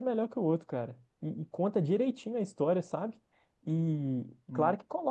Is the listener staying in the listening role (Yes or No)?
Yes